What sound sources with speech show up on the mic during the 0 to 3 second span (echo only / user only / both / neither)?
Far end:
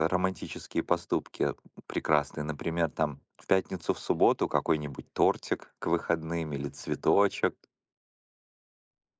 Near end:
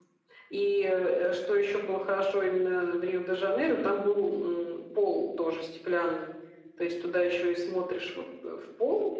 user only